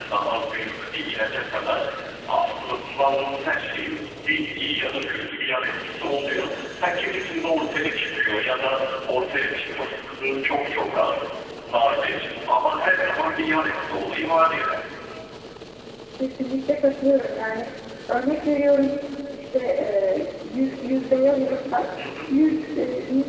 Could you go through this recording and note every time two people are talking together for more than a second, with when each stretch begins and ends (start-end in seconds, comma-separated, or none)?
none